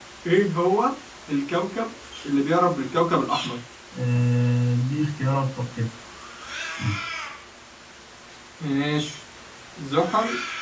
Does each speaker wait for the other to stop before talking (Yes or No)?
Yes